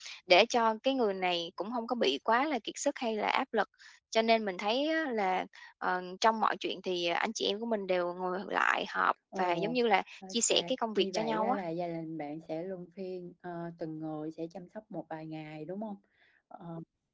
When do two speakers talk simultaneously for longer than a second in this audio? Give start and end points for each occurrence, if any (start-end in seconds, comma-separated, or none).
10.3-11.6